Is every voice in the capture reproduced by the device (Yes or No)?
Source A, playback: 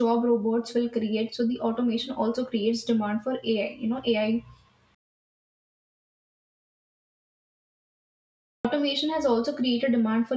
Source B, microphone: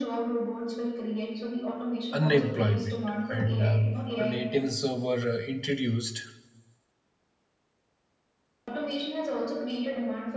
No